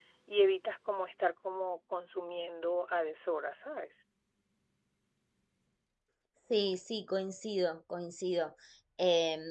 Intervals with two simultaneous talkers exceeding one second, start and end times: none

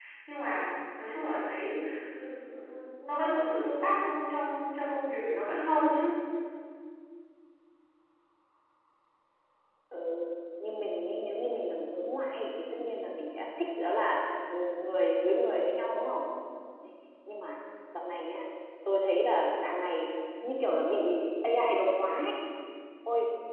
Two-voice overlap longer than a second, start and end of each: none

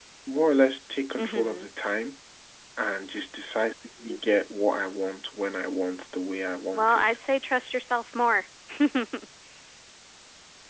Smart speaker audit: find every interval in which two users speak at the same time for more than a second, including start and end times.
none

